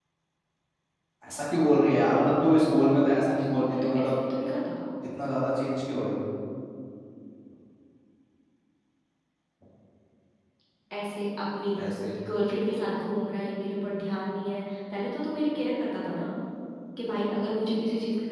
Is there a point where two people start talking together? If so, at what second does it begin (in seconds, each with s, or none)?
2.6 s